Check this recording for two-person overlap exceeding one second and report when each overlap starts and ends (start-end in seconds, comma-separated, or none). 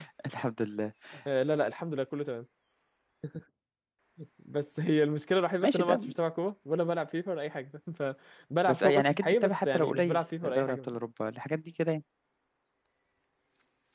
8.7-11.0